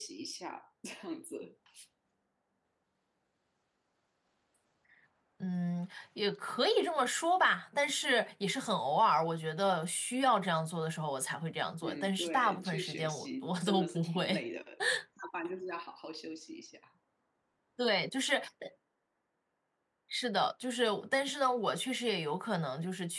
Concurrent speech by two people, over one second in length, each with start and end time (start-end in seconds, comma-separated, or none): 11.8-14.4